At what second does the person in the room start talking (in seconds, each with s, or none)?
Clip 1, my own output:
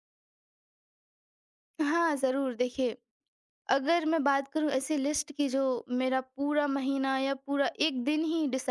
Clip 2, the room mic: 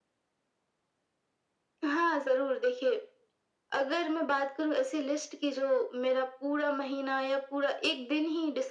none